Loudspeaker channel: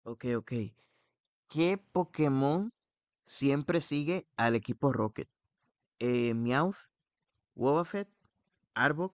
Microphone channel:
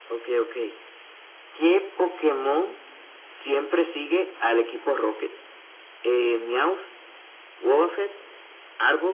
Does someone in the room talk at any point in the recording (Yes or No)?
No